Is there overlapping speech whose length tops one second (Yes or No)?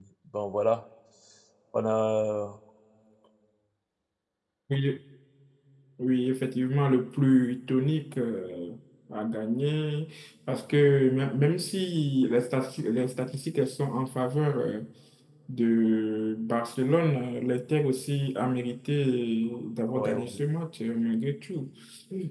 No